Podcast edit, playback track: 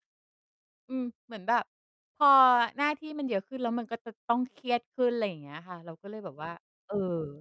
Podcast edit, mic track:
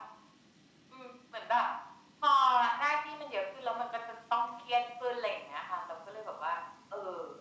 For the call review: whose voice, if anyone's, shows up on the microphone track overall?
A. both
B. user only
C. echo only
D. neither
C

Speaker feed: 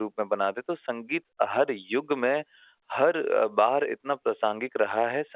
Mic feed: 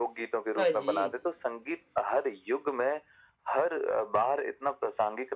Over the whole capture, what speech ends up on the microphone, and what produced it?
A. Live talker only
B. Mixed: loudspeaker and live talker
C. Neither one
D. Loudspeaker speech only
B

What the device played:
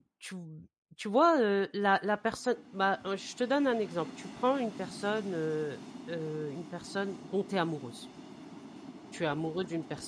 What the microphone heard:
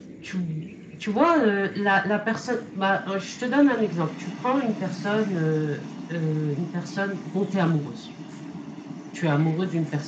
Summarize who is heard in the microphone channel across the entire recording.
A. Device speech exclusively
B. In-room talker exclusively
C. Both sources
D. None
A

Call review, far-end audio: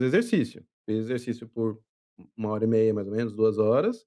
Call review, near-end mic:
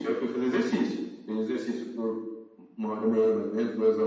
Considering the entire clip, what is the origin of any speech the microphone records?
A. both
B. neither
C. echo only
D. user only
C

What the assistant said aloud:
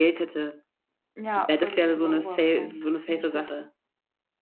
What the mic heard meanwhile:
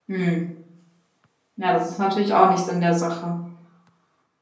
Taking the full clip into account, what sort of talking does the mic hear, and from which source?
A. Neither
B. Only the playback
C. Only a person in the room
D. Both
C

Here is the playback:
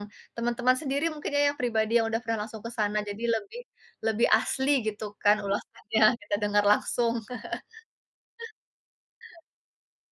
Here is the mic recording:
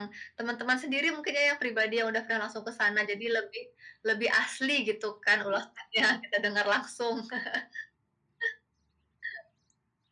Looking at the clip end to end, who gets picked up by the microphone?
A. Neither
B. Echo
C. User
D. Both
B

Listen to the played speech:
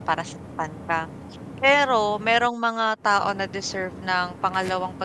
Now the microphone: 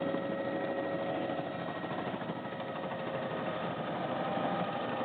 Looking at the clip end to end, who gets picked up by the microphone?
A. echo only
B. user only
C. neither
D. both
C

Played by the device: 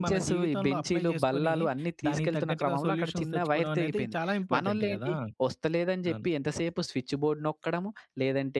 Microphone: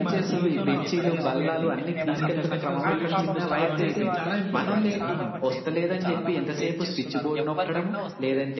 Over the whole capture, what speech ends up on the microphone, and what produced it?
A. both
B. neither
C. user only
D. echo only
A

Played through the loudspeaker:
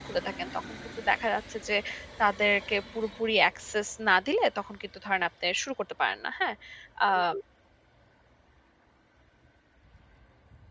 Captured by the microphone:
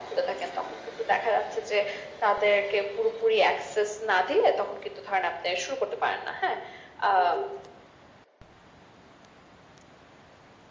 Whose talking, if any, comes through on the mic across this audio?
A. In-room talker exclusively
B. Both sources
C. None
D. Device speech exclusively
D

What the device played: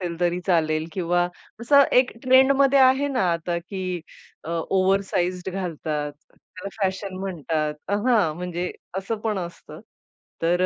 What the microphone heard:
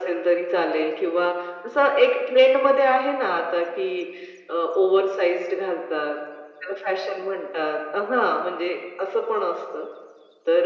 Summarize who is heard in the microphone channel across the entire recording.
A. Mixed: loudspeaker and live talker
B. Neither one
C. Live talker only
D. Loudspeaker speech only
D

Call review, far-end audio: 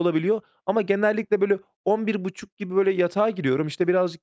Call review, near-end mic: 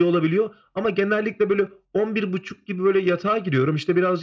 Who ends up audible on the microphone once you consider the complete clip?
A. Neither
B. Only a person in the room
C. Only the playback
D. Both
C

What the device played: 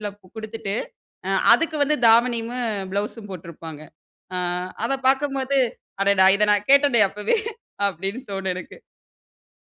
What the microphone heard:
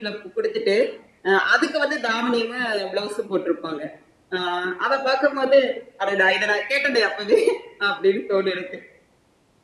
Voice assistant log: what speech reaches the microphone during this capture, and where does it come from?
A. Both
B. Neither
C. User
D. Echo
D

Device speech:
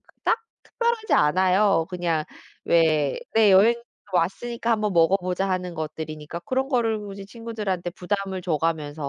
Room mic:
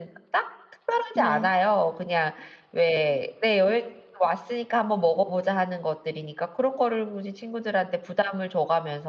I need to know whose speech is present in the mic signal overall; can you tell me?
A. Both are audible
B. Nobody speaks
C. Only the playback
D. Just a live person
A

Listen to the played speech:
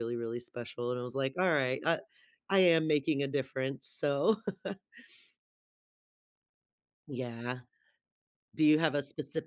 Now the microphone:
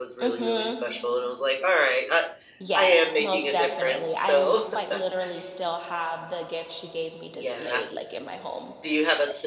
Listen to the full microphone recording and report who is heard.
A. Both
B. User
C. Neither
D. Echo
A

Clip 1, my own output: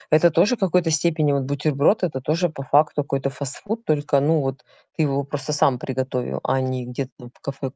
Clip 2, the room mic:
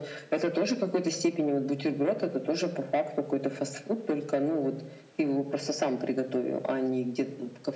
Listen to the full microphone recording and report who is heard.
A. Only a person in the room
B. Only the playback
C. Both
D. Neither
B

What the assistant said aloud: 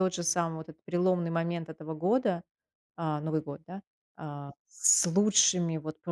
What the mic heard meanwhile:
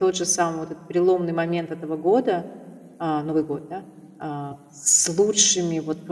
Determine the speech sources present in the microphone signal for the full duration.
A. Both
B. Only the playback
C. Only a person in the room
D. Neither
B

